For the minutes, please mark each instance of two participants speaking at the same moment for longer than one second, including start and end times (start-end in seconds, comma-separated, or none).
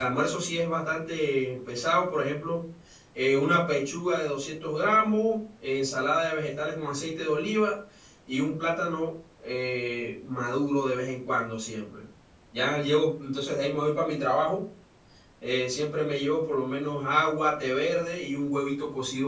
none